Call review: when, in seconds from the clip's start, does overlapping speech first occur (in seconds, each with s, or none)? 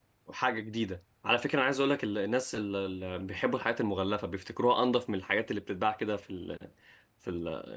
none